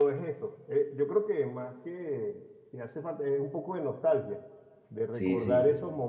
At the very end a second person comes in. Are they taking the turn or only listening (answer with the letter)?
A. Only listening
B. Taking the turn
A